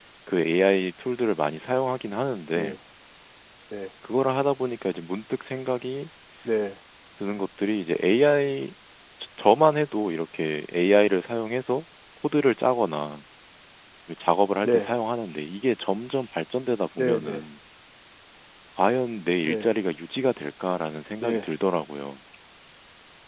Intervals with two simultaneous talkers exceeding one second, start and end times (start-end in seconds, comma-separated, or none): none